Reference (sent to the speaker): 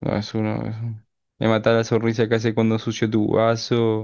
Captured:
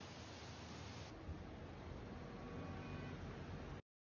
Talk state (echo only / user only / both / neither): neither